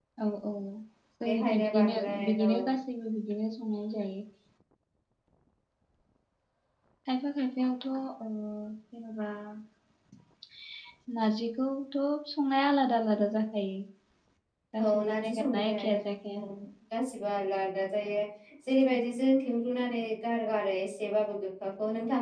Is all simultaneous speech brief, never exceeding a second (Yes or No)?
No